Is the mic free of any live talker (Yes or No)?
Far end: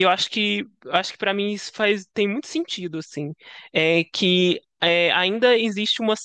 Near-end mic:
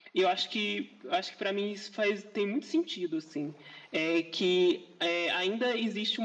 Yes